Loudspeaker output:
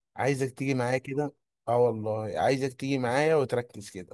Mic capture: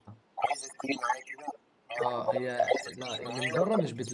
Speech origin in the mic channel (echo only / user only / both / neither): both